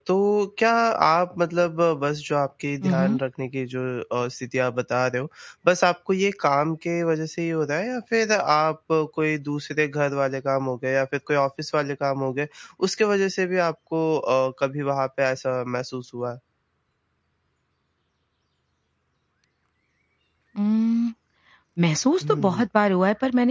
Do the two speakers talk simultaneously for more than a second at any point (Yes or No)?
No